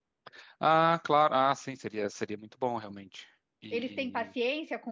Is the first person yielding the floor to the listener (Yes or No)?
Yes